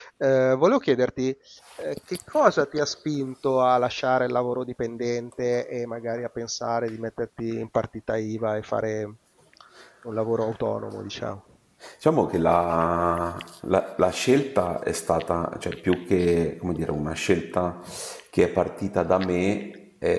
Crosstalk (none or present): none